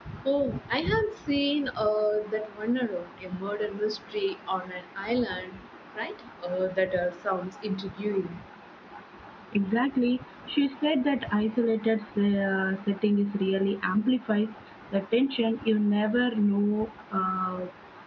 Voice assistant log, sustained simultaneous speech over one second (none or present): none